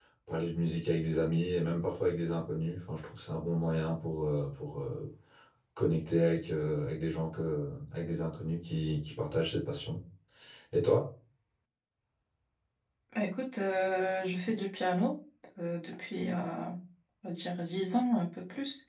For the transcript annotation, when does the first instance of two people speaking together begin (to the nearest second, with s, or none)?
none